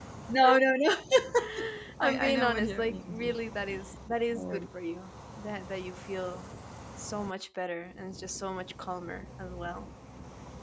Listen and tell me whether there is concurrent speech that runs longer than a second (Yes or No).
Yes